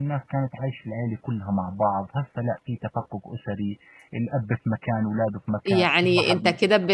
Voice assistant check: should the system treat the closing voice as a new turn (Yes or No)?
Yes